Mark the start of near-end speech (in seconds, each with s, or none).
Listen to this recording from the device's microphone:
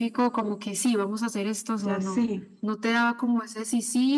1.8 s